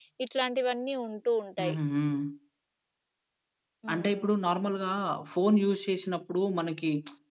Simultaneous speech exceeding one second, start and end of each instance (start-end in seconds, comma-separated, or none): none